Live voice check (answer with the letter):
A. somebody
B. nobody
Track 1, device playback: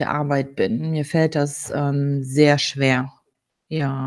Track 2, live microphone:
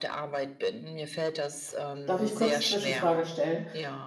A